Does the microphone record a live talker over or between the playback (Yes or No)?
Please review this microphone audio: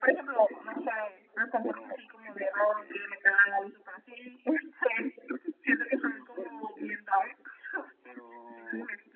No